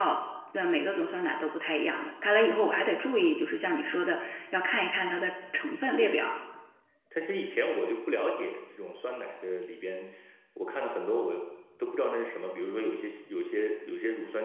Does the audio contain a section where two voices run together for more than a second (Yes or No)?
No